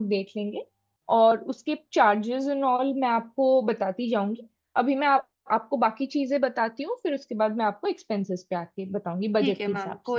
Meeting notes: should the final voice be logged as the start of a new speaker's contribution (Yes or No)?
Yes